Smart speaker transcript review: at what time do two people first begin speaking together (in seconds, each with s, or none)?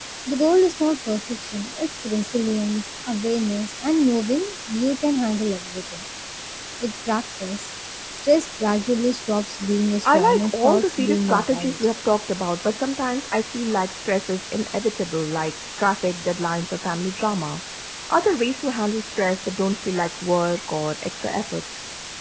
10.1 s